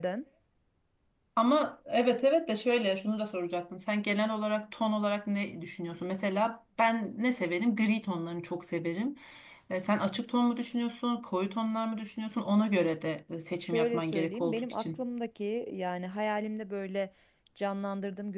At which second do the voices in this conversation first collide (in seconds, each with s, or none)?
13.6 s